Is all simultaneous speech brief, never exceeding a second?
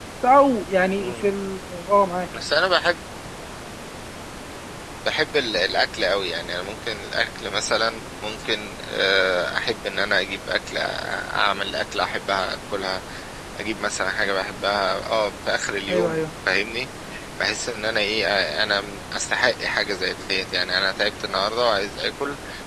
Yes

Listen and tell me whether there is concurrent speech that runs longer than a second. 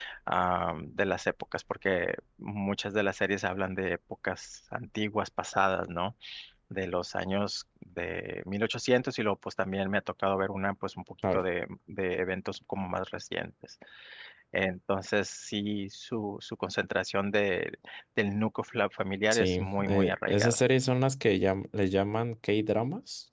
Yes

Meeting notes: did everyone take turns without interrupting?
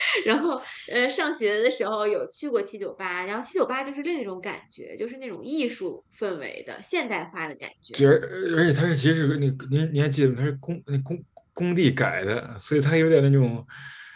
Yes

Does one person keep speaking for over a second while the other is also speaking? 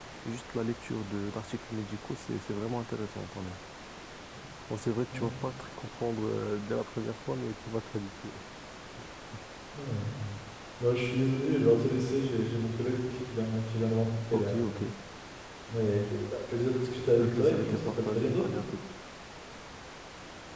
Yes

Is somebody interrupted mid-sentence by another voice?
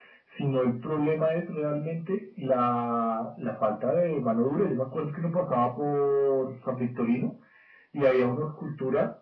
No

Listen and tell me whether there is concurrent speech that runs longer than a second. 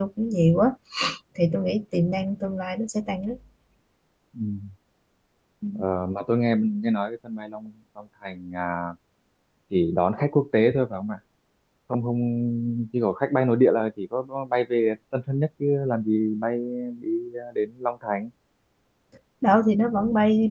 No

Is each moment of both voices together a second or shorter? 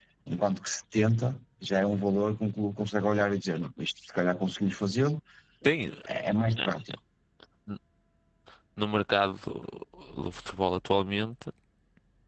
Yes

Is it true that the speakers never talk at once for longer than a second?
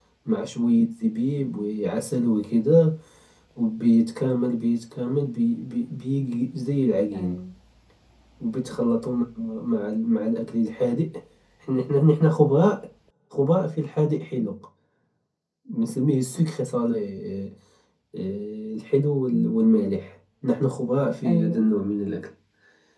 Yes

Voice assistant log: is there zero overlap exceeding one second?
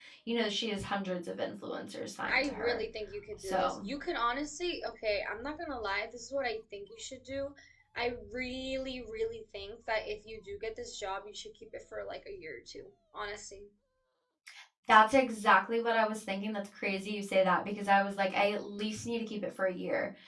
Yes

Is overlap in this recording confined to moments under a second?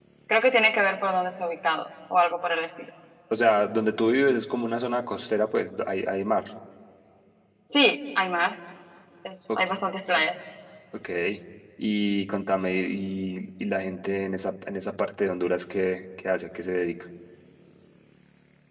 Yes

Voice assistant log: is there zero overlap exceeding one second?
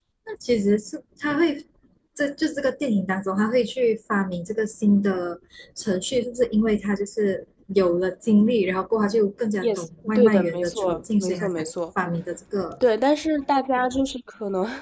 No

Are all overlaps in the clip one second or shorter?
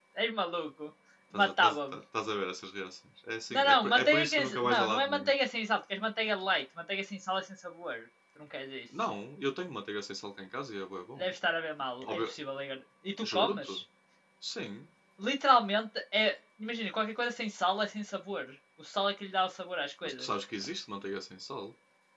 No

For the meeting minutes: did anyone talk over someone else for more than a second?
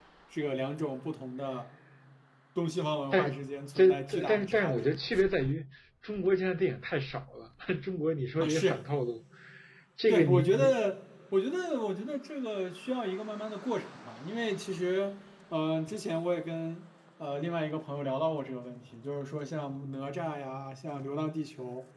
Yes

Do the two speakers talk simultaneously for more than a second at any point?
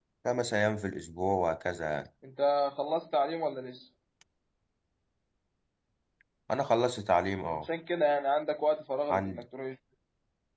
No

